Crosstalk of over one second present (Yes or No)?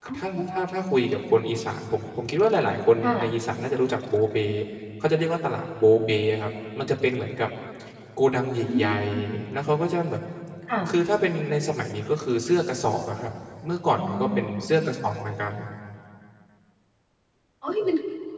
No